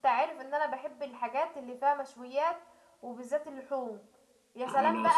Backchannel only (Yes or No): Yes